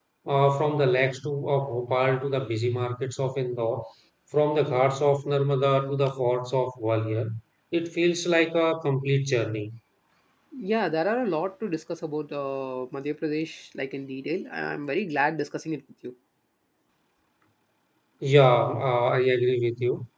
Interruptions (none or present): none